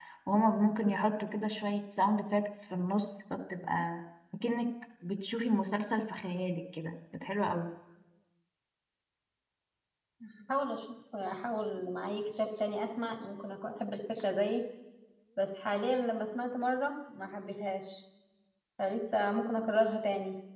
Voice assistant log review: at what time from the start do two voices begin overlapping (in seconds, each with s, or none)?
none